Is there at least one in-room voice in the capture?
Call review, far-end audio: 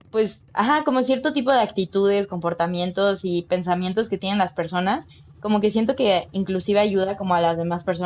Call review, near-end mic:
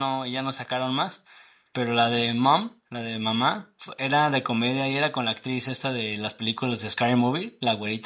Yes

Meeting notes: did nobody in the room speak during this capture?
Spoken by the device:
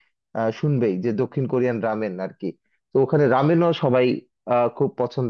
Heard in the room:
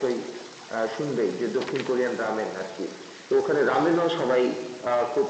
Yes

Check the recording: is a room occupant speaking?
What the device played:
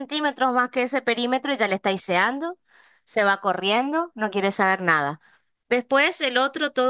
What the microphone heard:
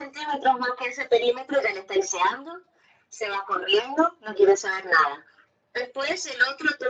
No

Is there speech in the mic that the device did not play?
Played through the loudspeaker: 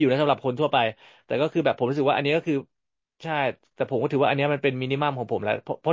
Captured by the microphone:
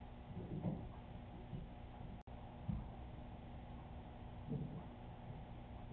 No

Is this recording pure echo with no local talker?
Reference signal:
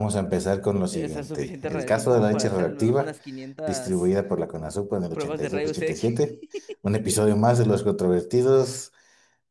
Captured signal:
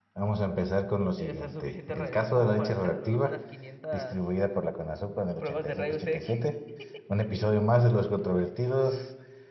Yes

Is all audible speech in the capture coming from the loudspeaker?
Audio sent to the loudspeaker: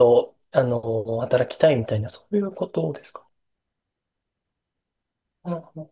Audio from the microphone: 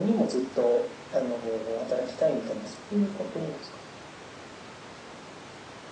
Yes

